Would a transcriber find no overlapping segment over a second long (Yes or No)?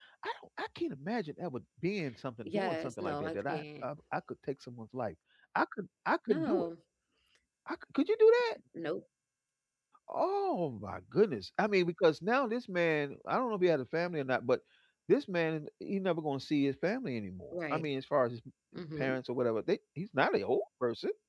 No